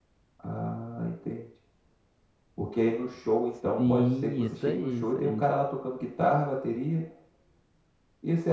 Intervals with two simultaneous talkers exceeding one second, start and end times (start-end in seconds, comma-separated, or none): 3.8-5.4